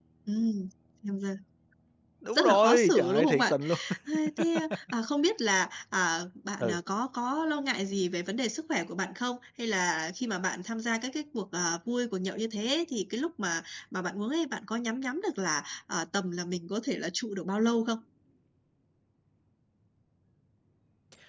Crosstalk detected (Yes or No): Yes